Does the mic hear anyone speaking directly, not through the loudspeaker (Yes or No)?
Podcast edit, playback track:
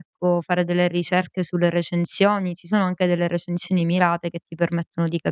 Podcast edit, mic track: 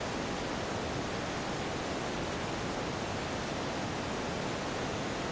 No